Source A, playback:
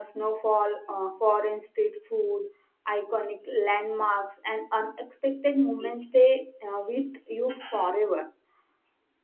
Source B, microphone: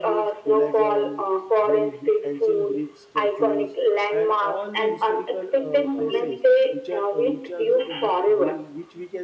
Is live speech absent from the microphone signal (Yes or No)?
No